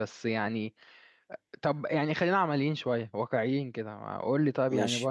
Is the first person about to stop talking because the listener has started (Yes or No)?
No